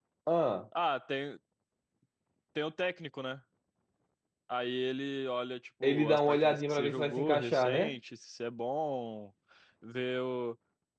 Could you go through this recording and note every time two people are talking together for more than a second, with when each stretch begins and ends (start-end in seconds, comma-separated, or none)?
5.8-7.9